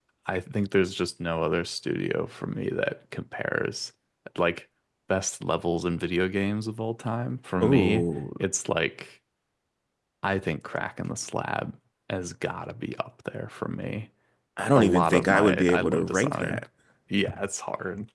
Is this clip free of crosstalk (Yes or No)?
No